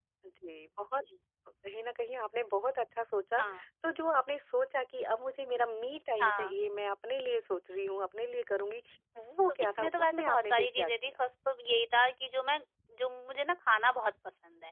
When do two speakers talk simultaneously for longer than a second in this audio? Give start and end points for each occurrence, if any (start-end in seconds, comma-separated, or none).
9.6-11.1